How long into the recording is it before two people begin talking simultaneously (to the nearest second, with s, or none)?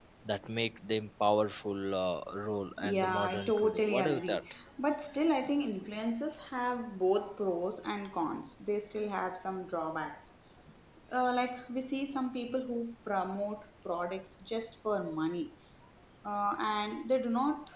3 s